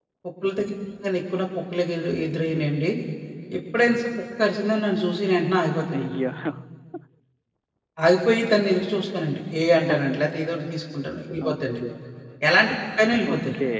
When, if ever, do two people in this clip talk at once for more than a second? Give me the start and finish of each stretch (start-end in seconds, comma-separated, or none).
none